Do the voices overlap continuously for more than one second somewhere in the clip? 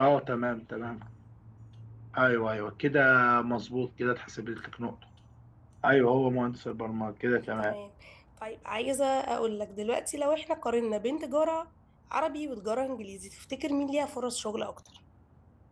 No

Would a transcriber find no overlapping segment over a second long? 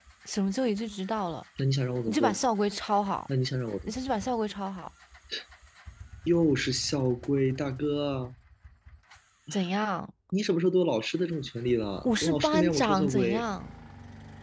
No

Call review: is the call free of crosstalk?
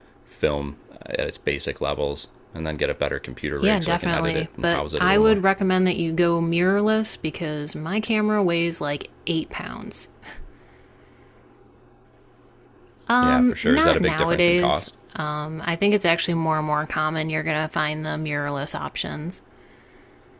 No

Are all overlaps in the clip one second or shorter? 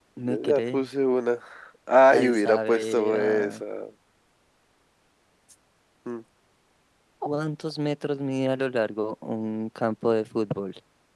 No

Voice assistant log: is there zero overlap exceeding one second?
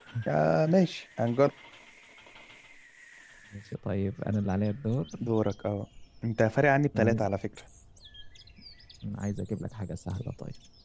Yes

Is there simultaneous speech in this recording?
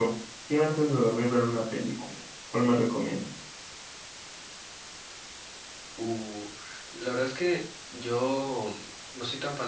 No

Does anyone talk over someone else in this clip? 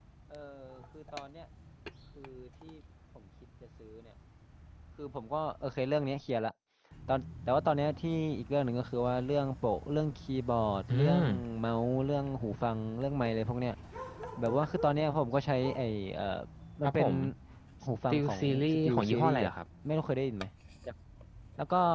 Yes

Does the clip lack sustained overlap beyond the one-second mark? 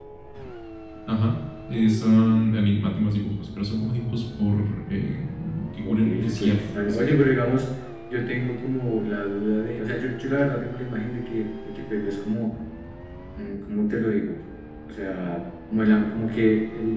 No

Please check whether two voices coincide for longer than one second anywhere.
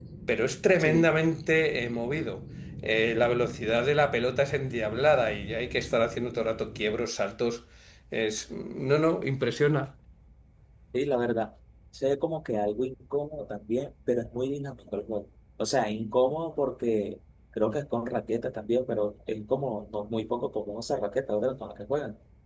No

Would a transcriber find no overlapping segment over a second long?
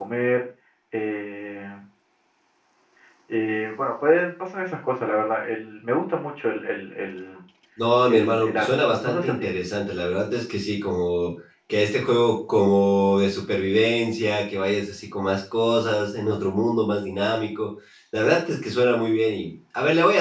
No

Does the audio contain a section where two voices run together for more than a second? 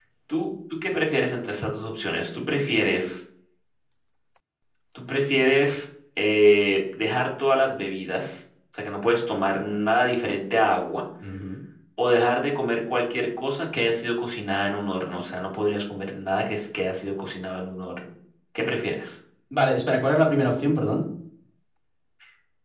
No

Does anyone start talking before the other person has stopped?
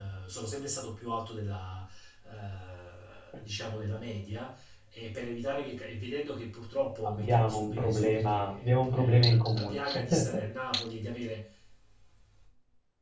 Yes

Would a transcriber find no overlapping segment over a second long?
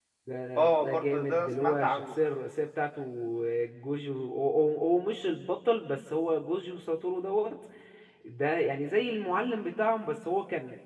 No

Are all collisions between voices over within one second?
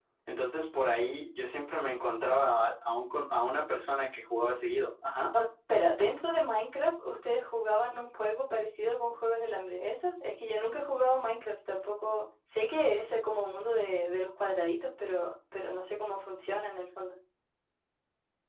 Yes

